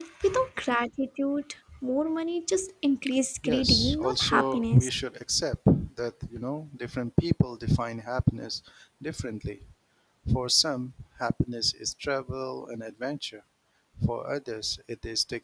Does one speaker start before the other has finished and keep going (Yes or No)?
Yes